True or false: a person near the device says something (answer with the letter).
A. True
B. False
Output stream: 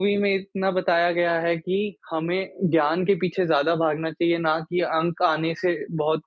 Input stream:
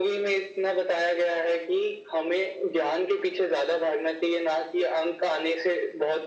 B